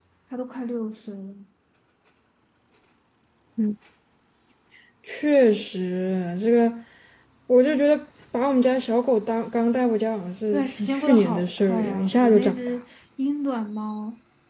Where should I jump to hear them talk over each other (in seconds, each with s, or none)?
10.5 s